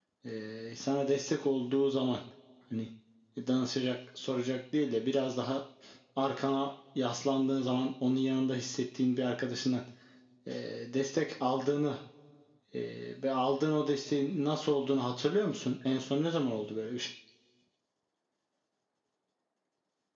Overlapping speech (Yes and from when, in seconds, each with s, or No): No